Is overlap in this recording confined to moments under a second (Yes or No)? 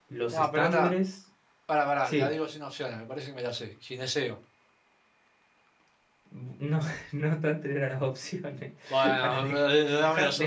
No